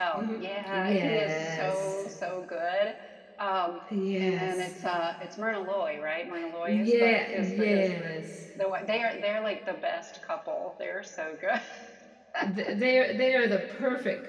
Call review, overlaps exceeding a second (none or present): present